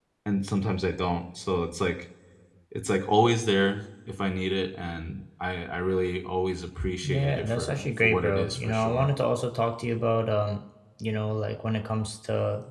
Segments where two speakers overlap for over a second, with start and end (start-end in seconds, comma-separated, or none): 7.0-9.1